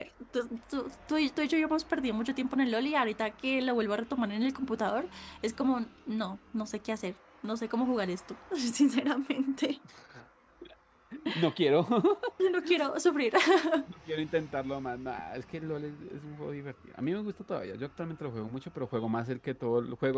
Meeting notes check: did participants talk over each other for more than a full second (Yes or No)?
No